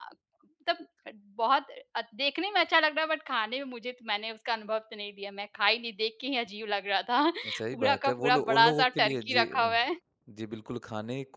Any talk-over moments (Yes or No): Yes